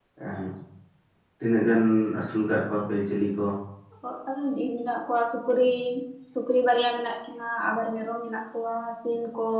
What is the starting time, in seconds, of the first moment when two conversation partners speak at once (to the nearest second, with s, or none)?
none